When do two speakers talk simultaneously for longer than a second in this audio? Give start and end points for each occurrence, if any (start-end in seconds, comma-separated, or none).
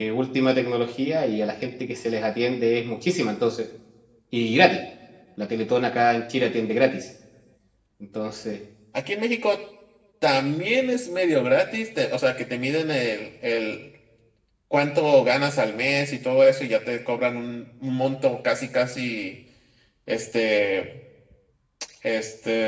none